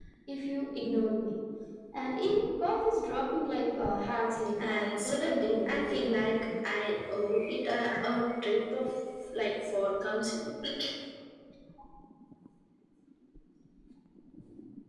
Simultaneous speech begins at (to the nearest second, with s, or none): 5 s